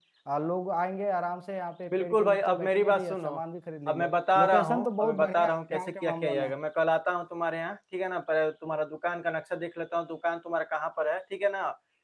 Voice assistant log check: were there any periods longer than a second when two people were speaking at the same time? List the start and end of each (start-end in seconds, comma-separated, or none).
1.9-3.3, 3.9-6.5